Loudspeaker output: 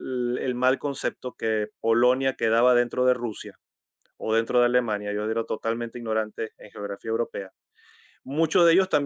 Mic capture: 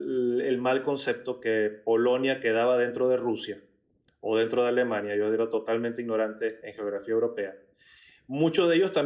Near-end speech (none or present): none